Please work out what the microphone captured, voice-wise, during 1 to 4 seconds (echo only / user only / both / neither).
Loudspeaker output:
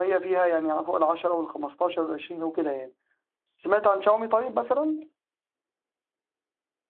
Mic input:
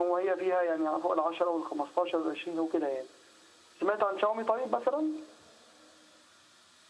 echo only